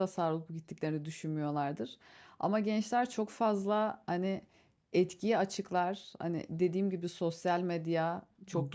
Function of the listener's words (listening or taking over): listening